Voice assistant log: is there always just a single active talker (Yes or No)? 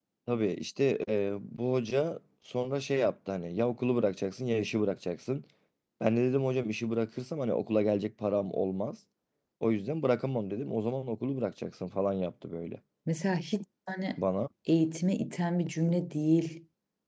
Yes